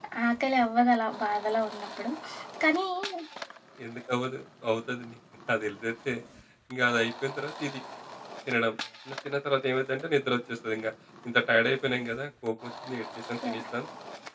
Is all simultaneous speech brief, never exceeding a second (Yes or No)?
Yes